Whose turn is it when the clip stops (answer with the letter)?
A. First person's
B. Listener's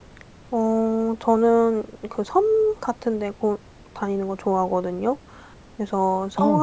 A